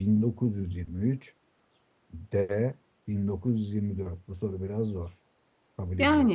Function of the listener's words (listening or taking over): taking over